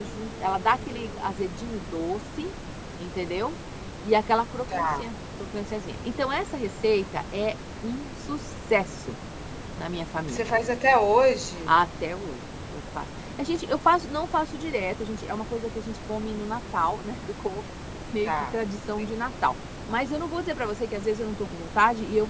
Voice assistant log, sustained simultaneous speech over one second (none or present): present